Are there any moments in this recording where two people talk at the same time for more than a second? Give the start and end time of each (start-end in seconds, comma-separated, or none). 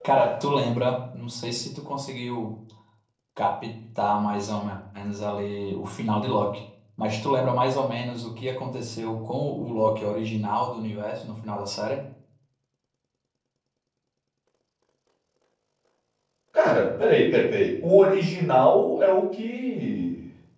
none